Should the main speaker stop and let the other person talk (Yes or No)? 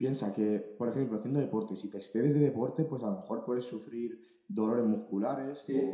No